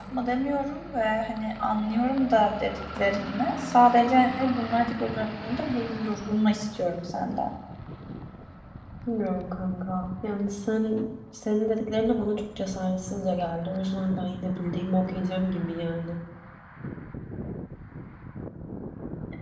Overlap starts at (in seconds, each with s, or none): none